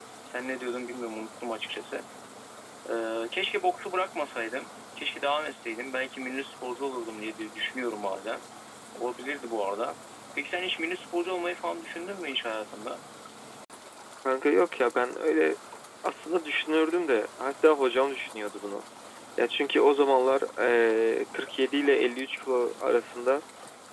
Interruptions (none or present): none